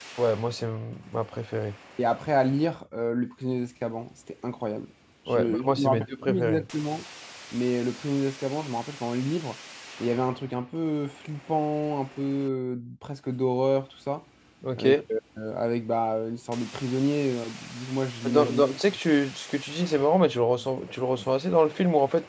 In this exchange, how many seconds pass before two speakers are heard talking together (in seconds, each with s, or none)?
5.3 s